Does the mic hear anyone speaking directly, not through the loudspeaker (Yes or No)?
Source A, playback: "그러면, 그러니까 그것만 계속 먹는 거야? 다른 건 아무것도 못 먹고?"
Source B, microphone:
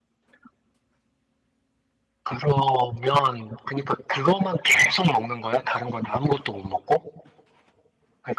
No